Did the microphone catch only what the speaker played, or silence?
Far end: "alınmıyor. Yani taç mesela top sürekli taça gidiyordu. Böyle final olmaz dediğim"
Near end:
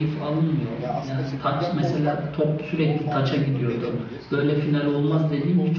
No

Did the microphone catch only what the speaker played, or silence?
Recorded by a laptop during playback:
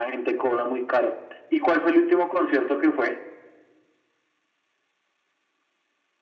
Yes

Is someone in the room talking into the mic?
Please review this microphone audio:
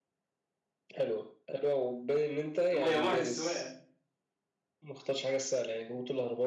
Yes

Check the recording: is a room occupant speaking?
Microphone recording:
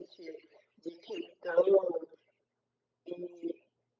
No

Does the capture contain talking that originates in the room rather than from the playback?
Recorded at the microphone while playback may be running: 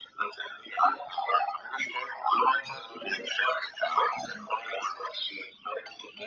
No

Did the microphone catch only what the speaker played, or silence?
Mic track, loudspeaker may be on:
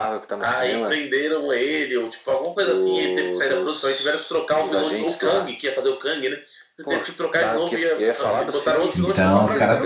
No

